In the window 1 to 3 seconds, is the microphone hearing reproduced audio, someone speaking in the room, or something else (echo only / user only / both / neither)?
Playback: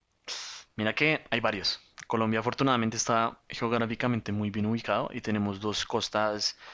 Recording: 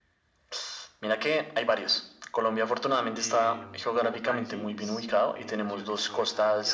echo only